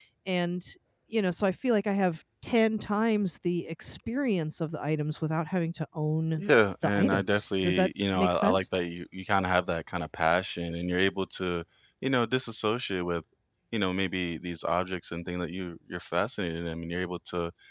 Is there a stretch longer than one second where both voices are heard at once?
Yes, from 6.8 s

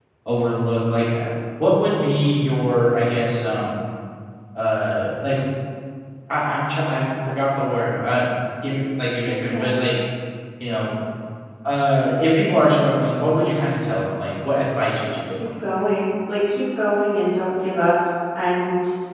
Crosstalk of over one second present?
No

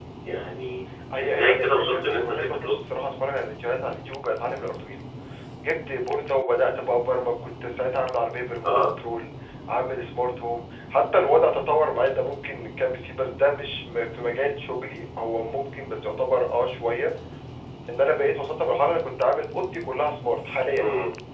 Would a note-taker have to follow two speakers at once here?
Yes, from 1.2 s

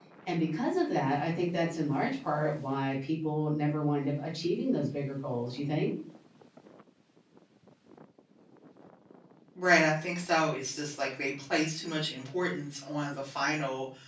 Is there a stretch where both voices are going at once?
No

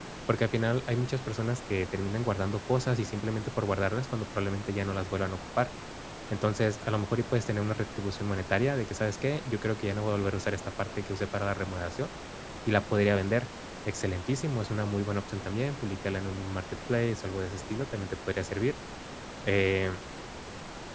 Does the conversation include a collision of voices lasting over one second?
No

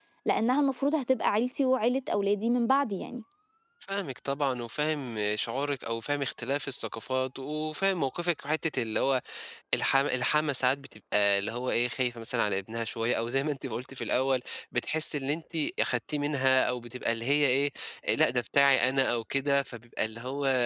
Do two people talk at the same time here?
No

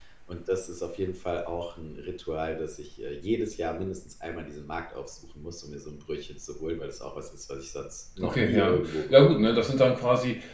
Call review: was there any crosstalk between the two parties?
Yes, from 8.2 s

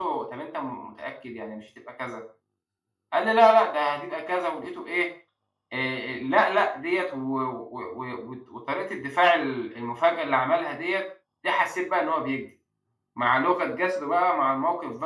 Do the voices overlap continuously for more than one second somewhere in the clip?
No

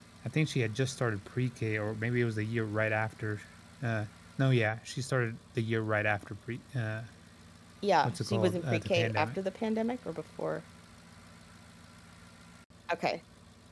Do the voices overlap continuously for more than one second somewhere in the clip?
Yes, from 8.0 s

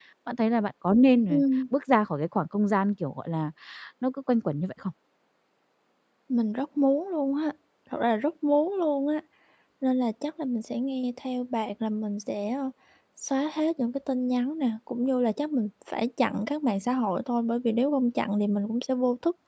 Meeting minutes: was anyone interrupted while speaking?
No

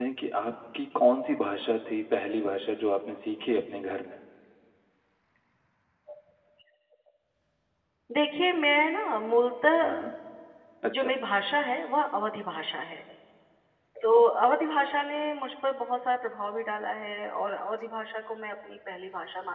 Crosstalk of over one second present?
No

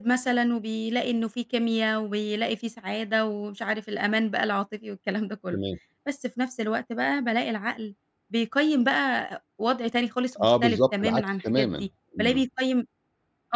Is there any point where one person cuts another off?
Yes, from 10.3 s

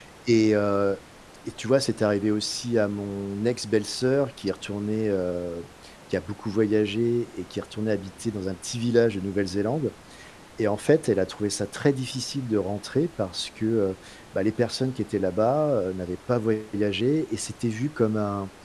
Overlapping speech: No

